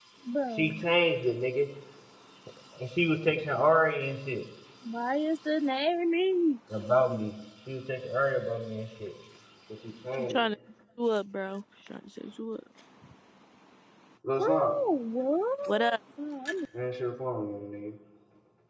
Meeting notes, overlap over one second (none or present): none